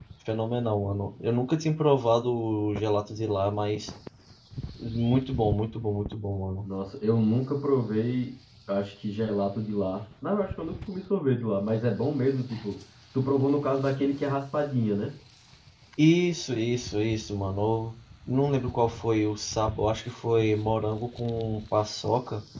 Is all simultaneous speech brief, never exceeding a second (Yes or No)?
Yes